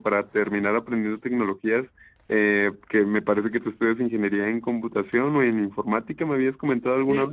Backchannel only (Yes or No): No